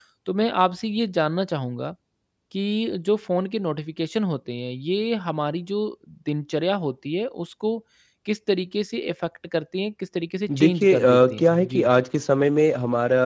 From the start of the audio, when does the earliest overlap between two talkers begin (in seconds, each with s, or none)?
10.5 s